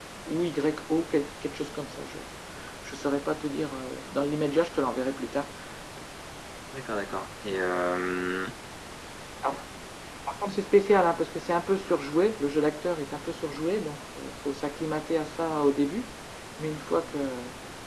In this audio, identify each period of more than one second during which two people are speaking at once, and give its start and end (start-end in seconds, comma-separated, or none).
none